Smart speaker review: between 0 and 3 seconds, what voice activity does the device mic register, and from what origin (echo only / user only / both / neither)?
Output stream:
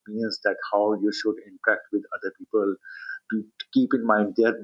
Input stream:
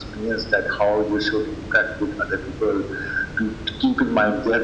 echo only